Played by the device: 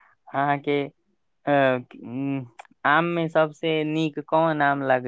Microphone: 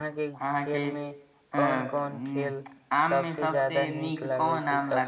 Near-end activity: present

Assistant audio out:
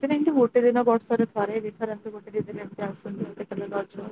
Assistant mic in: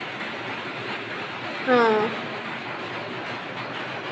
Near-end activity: present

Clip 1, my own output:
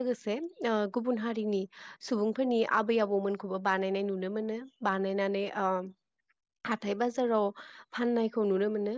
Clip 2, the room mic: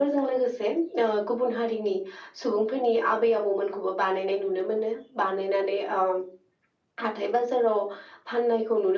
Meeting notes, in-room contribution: none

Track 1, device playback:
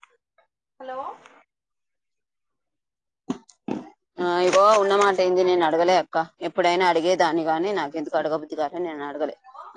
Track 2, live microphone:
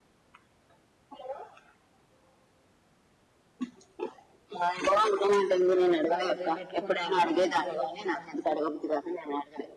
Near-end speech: present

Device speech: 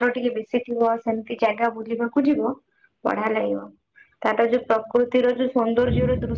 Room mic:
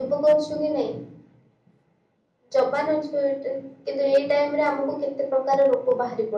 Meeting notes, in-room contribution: present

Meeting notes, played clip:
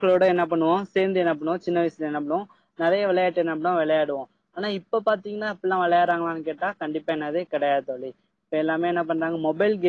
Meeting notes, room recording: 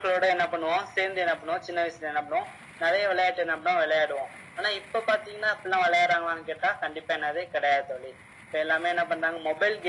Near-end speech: none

